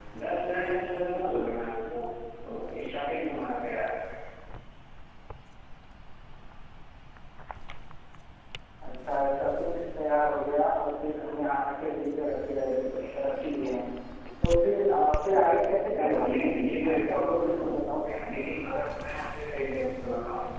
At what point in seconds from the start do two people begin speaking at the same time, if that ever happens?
15.9 s

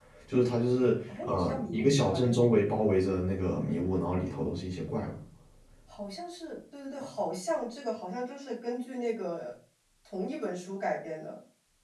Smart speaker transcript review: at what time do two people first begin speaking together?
1.2 s

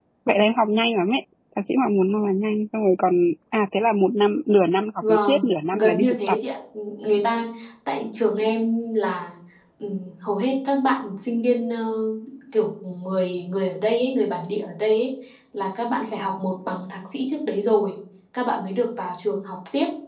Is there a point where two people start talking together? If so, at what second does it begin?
5.0 s

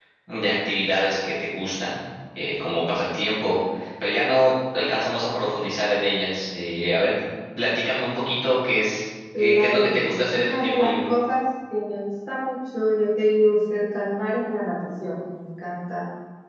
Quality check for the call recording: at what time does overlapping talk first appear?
9.3 s

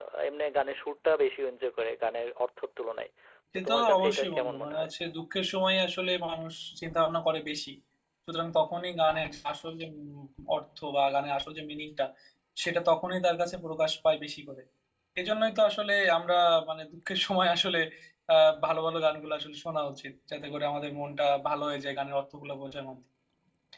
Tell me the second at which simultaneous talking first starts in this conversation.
3.5 s

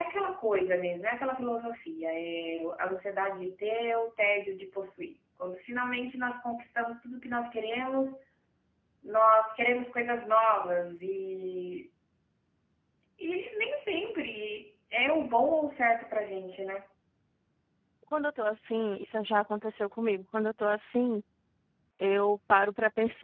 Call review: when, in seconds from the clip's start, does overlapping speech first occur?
none

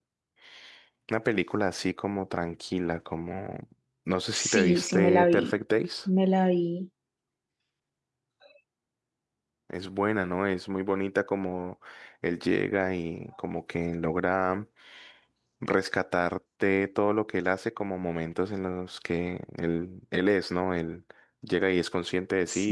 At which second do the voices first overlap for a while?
4.3 s

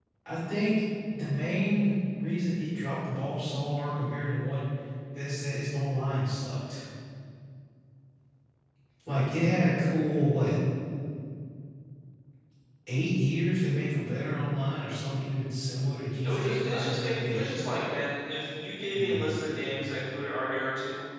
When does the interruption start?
16.2 s

